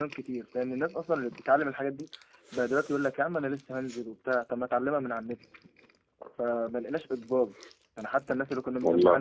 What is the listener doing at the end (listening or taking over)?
listening